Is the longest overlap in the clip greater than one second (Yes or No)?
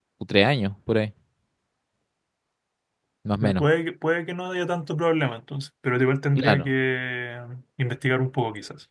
No